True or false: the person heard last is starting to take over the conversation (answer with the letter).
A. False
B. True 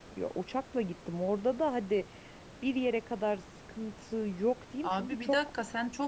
B